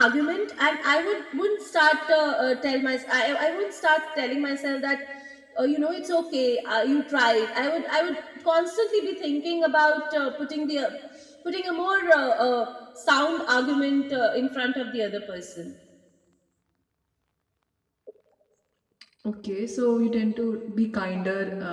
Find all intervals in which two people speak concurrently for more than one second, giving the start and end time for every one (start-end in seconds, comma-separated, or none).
none